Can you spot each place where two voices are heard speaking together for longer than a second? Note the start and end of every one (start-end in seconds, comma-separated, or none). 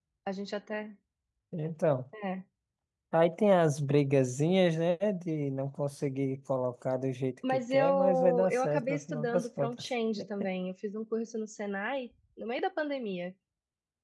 7.5-9.9